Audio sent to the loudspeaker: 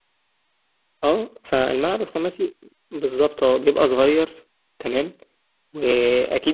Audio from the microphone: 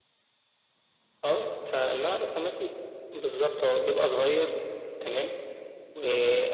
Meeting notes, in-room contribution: none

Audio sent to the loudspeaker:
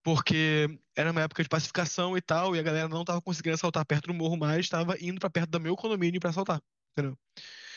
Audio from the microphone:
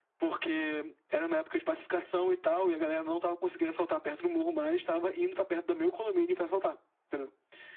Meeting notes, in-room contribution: none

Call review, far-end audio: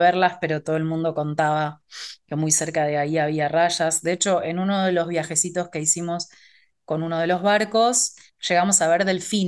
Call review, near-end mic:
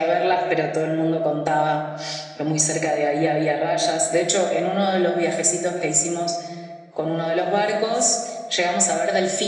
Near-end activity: none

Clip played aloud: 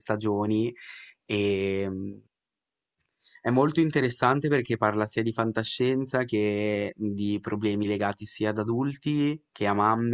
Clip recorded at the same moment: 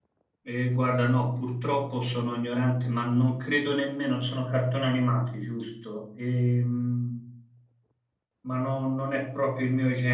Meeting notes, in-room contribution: present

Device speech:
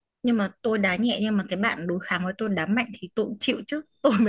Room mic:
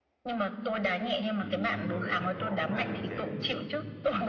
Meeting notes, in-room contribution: present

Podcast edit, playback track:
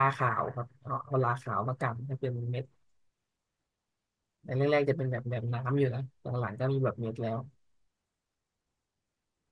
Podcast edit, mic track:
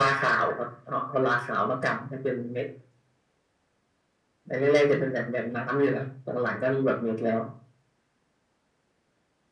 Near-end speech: none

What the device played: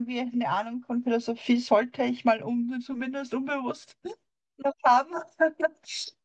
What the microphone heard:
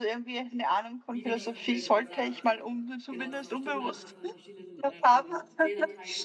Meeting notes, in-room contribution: present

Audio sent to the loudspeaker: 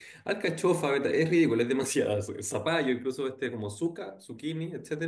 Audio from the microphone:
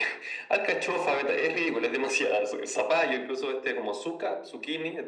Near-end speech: none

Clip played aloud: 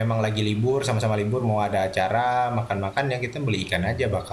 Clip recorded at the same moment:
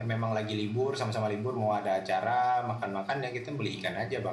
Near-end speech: none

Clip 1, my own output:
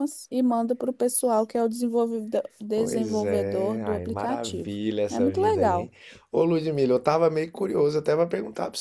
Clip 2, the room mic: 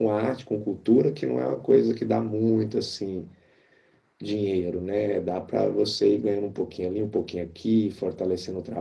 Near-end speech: present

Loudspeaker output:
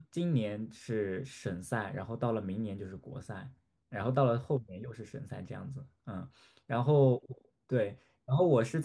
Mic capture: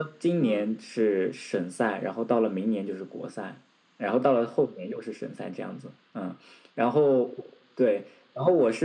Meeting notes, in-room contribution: present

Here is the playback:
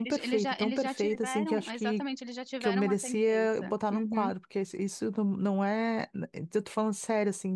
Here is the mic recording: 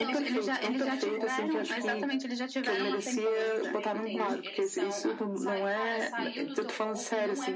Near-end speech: present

